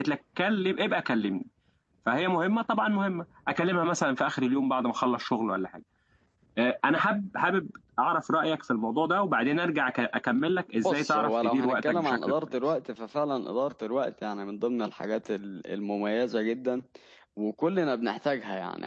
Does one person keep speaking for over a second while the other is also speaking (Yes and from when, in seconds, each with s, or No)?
Yes, from 10.8 s